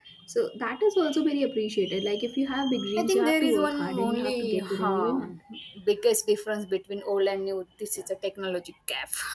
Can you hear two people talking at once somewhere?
Yes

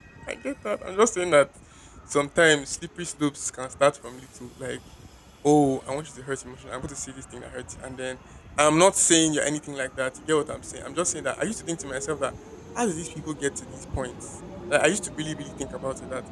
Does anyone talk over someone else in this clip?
No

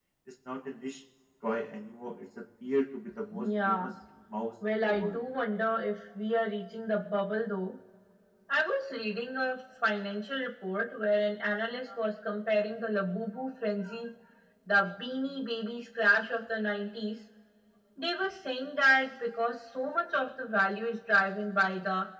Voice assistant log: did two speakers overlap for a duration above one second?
No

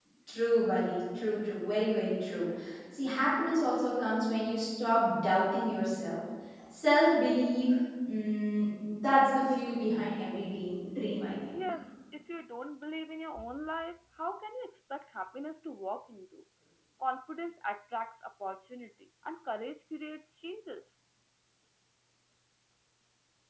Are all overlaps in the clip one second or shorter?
Yes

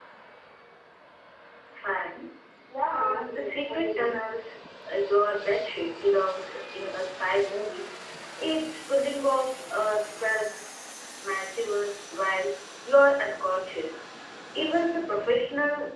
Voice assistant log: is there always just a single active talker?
No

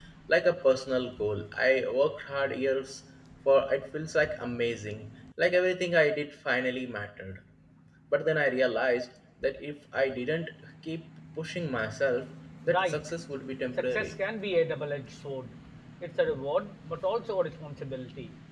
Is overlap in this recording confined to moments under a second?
Yes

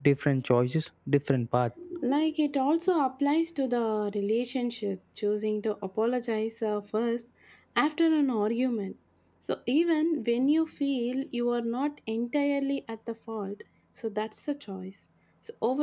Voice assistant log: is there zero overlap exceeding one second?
Yes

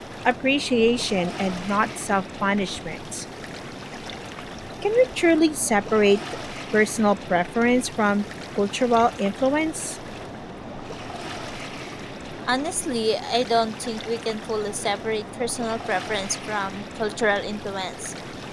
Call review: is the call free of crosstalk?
Yes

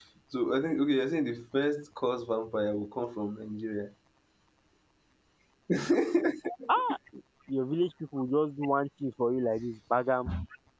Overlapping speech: No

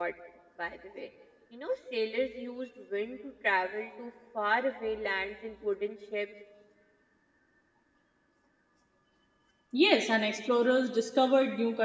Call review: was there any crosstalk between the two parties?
No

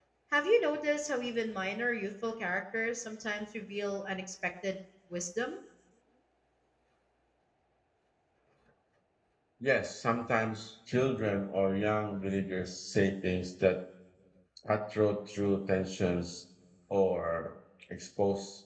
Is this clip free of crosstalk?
Yes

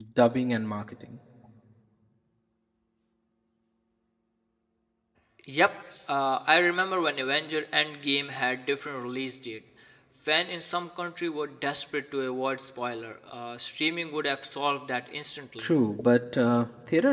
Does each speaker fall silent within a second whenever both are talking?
Yes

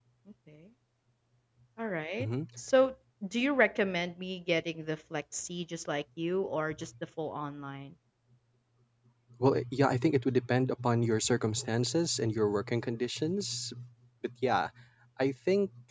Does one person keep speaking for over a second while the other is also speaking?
No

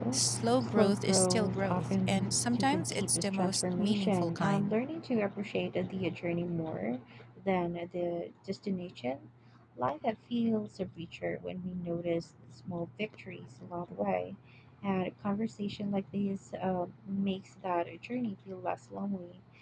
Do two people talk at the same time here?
Yes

